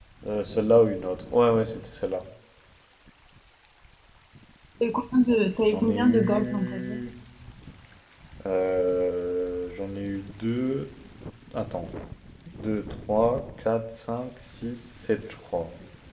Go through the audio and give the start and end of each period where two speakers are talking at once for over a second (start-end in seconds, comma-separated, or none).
5.6-7.0